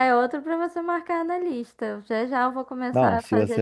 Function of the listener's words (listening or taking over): taking over